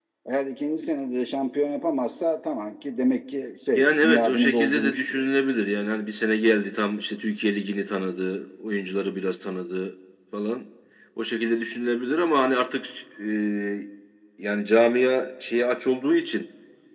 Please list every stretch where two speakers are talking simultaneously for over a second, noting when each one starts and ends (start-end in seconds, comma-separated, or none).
3.8-5.3